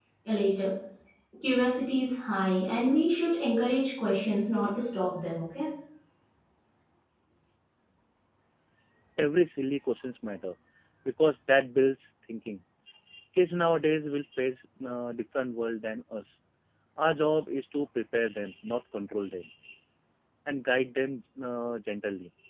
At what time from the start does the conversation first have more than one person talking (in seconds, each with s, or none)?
none